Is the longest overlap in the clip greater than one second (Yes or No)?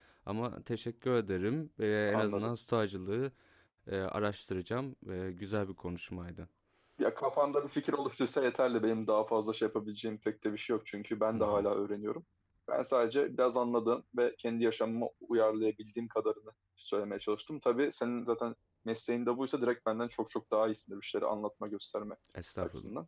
No